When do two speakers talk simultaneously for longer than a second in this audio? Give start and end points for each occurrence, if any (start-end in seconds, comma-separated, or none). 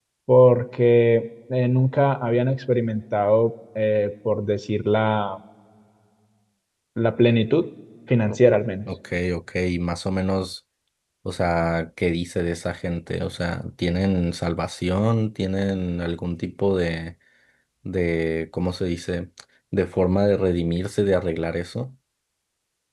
none